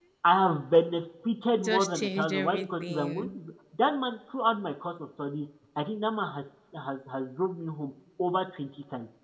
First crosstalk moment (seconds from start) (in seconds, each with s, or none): 1.6 s